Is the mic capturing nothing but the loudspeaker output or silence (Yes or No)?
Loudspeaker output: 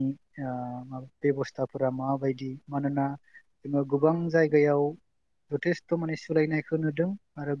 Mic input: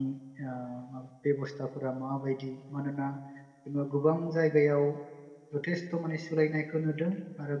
Yes